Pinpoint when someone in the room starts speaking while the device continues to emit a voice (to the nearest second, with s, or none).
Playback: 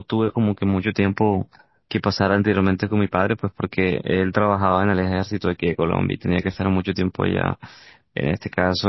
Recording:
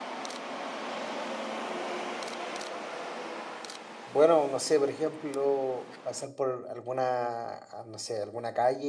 4 s